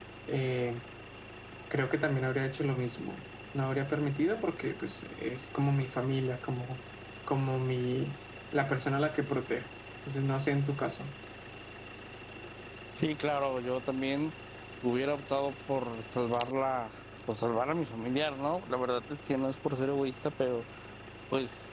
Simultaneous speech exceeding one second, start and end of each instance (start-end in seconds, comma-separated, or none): none